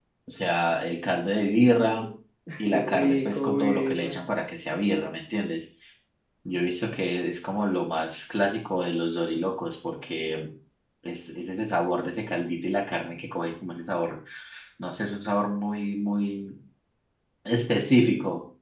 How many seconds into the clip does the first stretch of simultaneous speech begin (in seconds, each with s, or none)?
2.7 s